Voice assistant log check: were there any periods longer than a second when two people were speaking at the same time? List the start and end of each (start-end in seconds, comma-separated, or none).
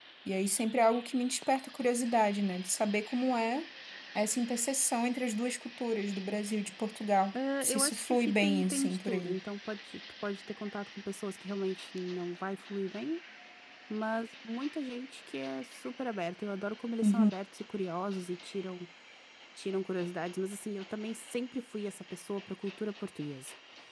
7.6-9.4